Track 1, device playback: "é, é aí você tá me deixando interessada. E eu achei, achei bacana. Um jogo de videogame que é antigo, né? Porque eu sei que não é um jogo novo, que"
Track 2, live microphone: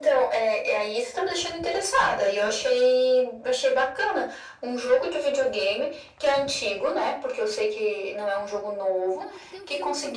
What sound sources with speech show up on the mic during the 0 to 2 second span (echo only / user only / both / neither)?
echo only